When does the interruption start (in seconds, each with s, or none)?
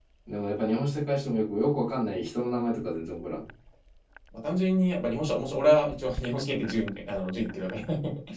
none